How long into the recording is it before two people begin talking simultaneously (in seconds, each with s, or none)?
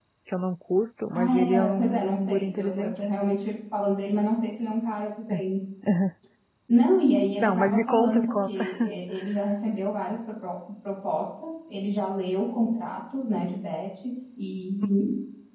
1.1 s